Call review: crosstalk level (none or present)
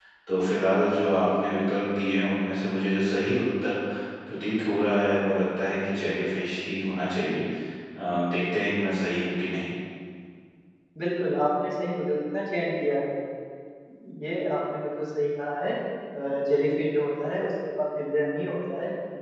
none